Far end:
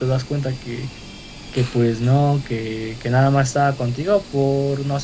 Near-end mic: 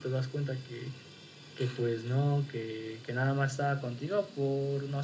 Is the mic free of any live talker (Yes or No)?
Yes